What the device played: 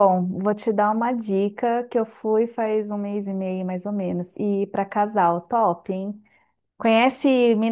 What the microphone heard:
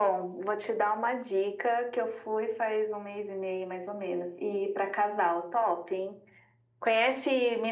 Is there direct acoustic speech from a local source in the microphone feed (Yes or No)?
No